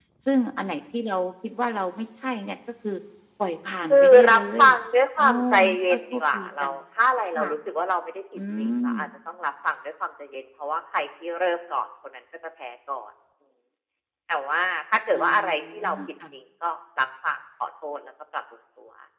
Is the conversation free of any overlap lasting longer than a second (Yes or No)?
No